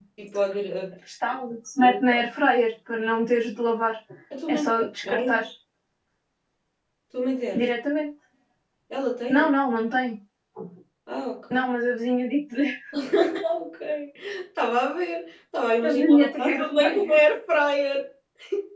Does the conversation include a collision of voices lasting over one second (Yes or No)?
Yes